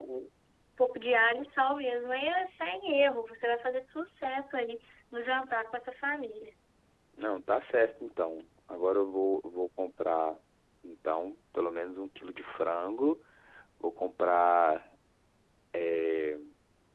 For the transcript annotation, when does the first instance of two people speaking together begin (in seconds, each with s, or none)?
none